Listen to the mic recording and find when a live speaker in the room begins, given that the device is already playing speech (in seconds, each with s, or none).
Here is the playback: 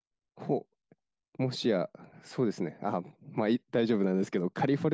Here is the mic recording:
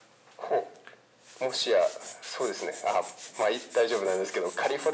none